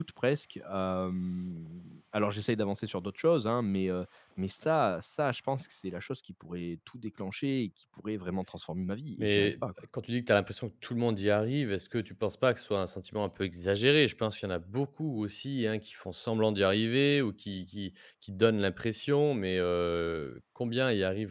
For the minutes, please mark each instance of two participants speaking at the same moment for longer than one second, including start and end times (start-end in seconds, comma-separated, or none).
none